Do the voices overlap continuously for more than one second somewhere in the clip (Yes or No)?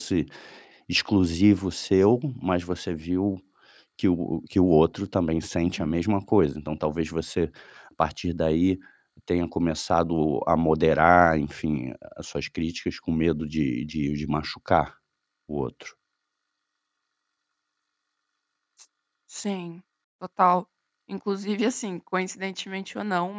No